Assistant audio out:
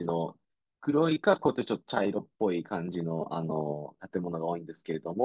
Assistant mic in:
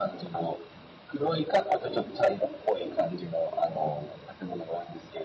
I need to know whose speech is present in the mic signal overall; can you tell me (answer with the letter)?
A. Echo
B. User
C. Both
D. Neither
A